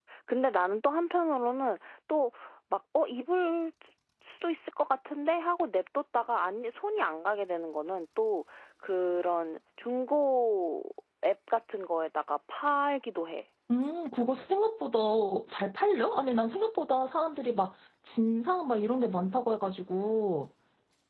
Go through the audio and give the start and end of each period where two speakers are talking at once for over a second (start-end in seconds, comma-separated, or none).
none